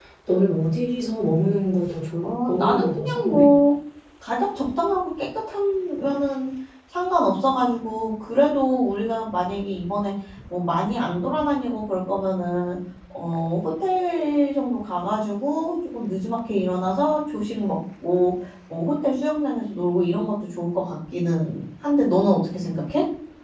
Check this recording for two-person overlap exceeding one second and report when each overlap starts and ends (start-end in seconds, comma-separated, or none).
2.2-3.5